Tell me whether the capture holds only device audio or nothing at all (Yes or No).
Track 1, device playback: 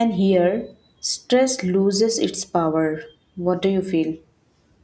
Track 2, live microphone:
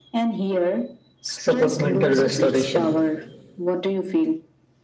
No